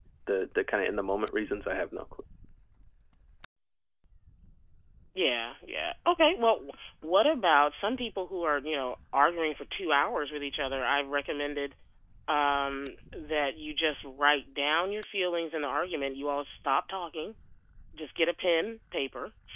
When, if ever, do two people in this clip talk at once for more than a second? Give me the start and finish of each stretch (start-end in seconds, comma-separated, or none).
none